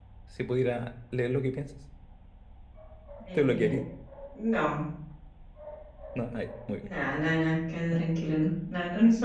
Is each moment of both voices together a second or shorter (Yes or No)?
Yes